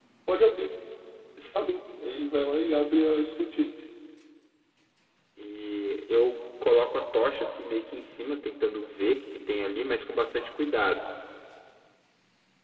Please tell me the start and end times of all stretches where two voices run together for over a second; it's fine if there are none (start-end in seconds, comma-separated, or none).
none